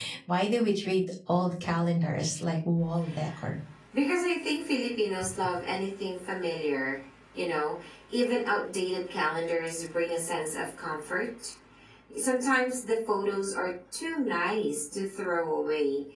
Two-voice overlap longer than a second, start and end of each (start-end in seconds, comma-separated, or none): none